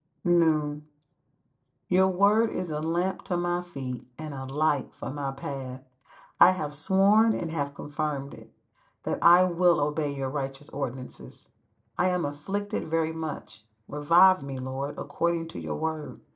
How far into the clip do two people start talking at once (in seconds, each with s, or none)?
none